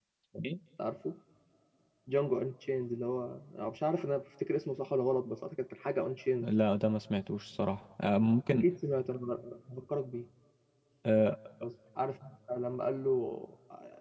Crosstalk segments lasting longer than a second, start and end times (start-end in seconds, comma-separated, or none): none